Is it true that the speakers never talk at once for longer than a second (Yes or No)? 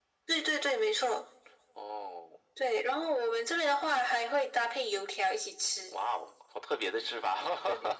Yes